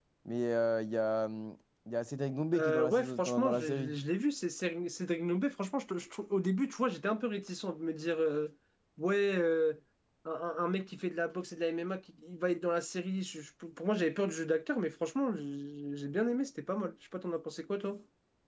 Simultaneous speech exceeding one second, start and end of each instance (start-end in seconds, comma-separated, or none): 2.5-4.0